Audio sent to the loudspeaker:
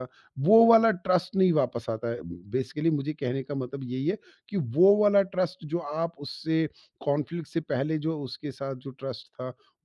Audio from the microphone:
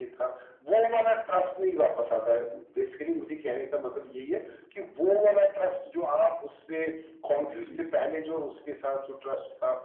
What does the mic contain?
both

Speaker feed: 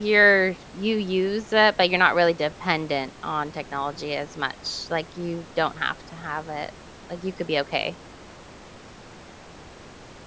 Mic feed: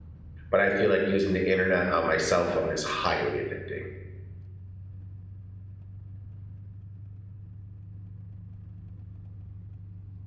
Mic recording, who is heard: user only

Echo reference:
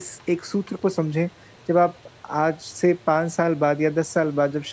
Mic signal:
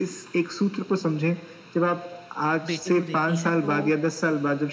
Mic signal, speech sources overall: both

